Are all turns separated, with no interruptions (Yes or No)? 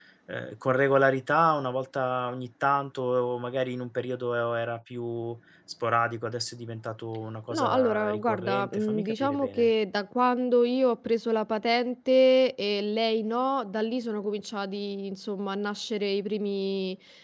No